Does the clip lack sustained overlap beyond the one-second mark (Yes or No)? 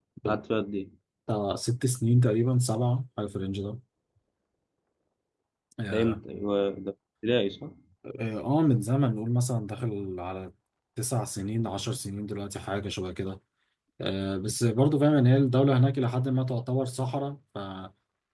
Yes